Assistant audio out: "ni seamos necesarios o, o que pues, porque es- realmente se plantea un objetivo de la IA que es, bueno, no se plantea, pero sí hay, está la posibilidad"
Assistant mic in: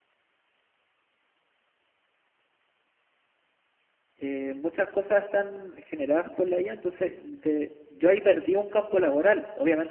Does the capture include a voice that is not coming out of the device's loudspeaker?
Yes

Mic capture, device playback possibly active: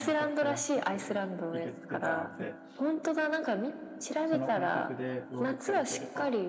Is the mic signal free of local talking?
No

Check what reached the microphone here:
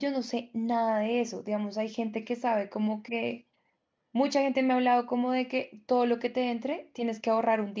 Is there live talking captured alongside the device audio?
Yes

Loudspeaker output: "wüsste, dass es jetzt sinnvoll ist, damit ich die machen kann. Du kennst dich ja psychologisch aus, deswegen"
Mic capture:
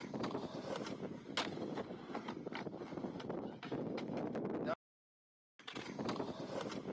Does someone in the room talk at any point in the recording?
No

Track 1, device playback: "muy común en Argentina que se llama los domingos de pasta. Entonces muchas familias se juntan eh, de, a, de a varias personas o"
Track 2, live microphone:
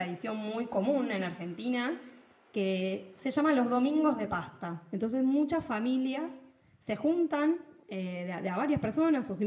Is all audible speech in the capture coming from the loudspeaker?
Yes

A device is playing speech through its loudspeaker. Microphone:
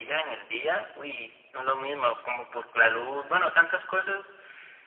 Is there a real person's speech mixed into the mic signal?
No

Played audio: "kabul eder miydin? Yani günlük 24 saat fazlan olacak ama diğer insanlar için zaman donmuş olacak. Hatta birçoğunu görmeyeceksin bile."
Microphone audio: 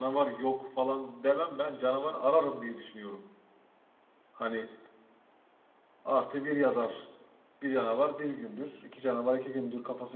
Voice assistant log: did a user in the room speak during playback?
Yes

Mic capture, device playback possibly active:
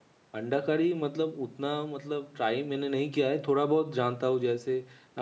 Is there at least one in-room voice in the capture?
Yes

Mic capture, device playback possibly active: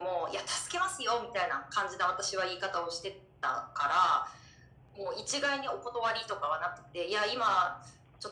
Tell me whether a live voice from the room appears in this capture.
No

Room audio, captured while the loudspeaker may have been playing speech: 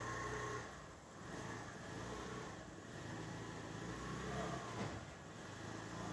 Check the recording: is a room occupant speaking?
No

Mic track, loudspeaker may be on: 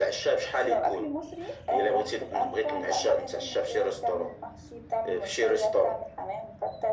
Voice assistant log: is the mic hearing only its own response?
Yes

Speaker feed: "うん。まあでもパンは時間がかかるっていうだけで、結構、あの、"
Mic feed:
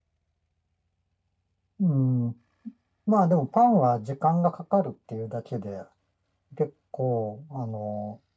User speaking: No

